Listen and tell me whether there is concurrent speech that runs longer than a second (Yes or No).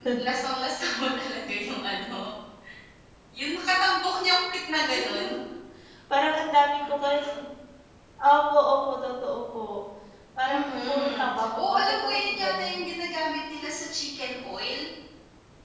Yes